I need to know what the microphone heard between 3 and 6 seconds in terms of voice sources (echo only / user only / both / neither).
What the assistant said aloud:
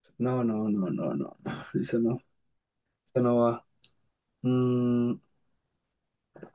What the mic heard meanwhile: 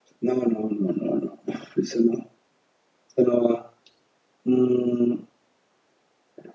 echo only